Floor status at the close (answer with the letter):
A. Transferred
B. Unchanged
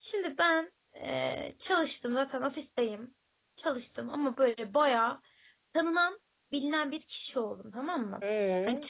B